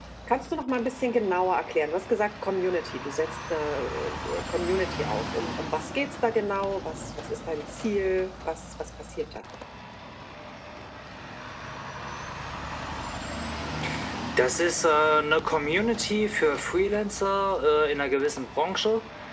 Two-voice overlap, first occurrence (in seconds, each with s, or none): none